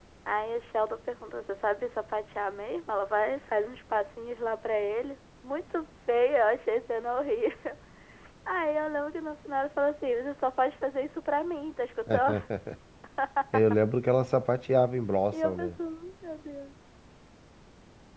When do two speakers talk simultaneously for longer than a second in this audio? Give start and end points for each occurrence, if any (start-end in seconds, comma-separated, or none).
none